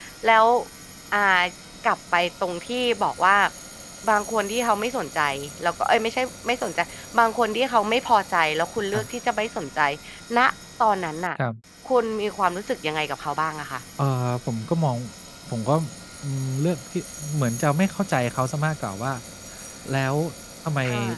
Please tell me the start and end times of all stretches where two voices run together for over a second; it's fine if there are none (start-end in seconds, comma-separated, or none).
none